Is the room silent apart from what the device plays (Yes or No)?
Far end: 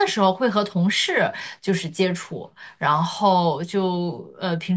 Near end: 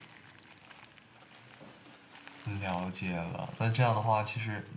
No